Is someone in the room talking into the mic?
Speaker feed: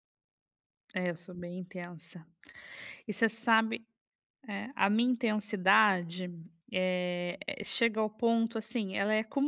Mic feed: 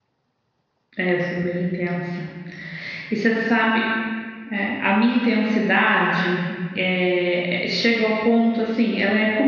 No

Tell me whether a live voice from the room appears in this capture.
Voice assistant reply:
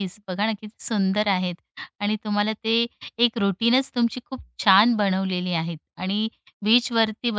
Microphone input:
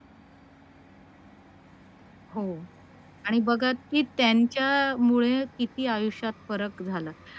Yes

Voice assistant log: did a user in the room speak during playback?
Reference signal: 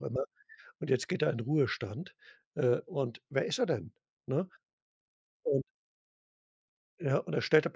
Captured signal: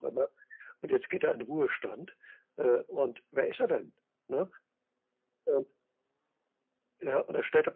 No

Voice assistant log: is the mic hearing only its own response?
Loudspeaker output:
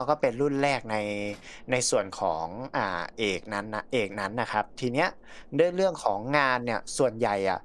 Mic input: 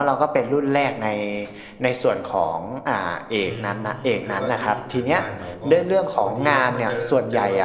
No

